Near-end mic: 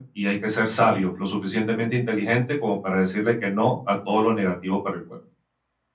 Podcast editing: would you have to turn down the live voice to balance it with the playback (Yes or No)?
No